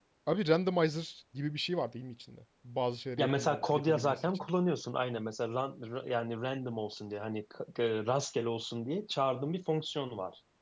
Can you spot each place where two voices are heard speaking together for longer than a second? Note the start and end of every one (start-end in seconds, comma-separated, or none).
3.2-4.4